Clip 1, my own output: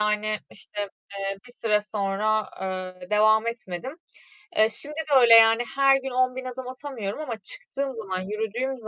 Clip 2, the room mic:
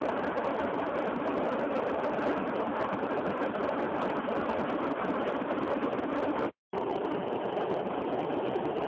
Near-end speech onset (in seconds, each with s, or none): none